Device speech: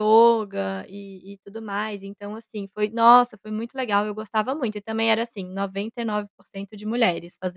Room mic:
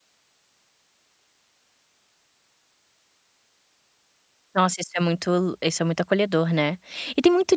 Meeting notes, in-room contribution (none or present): present